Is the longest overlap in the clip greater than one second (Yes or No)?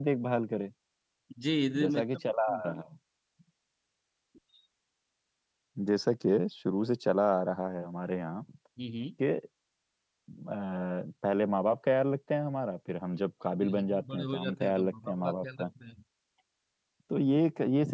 Yes